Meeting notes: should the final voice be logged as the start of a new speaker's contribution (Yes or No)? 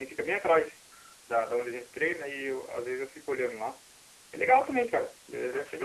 Yes